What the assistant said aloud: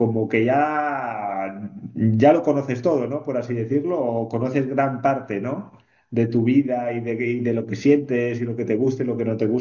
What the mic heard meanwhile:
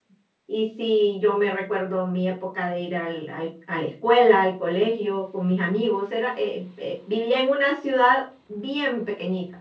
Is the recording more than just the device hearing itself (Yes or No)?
Yes